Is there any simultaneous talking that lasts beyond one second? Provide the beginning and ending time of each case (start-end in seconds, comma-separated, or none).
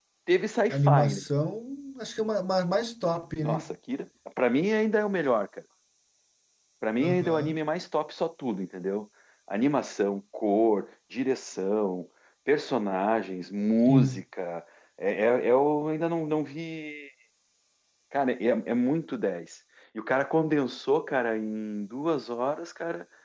none